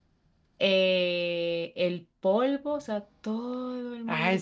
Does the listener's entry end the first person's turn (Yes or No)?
Yes